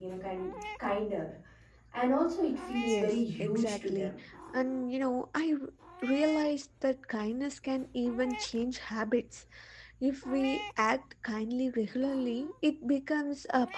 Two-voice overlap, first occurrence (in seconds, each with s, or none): 2.8 s